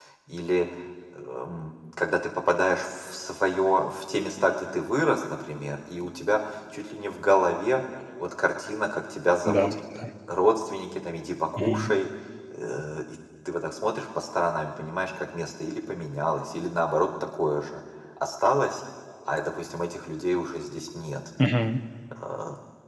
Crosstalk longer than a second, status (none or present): none